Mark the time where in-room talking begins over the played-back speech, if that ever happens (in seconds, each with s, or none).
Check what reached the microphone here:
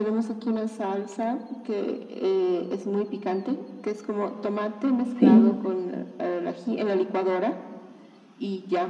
5.2 s